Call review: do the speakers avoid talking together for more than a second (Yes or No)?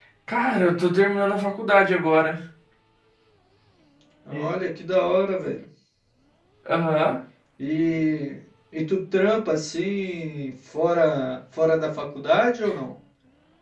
Yes